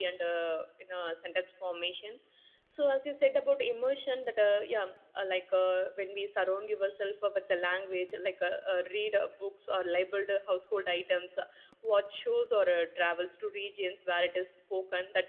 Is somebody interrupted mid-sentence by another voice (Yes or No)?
No